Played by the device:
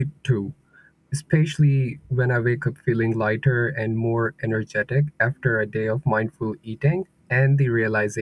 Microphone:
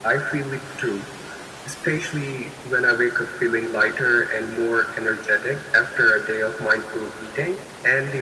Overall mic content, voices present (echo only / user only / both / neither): echo only